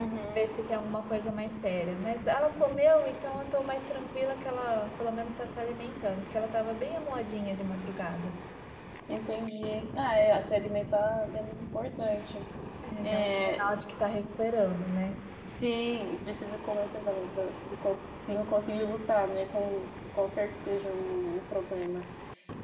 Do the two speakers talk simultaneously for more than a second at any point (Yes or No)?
No